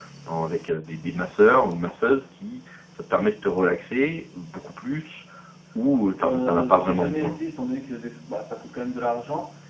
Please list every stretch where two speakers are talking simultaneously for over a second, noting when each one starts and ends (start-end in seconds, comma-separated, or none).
6.2-7.4